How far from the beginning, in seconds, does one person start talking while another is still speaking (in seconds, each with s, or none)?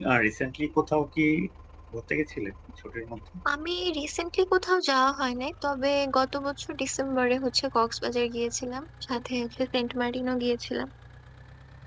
none